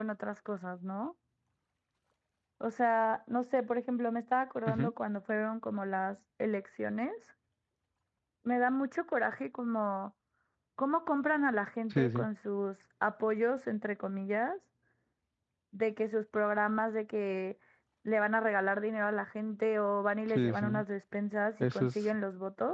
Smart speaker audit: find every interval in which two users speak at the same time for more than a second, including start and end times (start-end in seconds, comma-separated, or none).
none